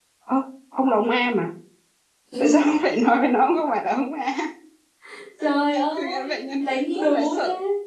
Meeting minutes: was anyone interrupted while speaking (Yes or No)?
Yes